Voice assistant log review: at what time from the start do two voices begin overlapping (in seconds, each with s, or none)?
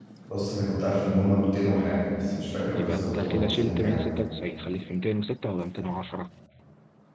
2.7 s